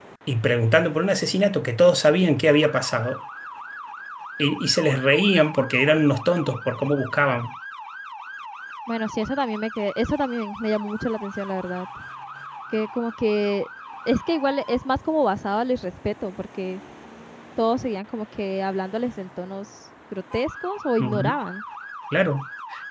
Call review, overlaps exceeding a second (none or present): none